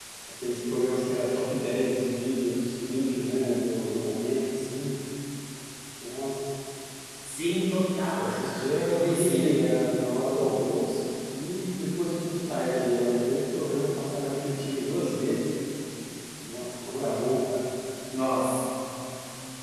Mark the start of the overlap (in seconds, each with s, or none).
8.1 s